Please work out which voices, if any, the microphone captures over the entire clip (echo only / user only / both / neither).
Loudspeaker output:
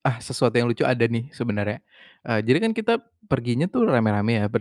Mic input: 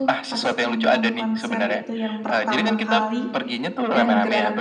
both